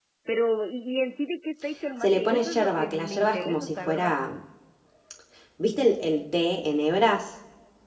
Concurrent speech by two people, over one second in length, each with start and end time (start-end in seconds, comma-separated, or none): 2.0-4.1